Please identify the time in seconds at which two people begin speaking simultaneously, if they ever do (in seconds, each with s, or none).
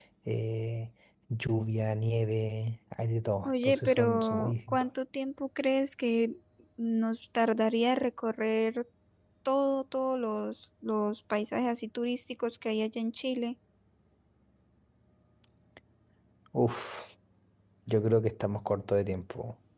3.4 s